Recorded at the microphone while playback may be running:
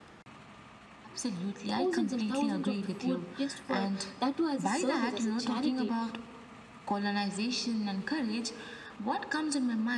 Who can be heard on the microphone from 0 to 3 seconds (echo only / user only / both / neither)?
both